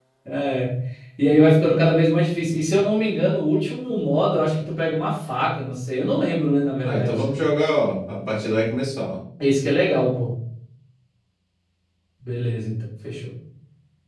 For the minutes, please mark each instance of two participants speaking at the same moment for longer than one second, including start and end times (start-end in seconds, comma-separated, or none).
none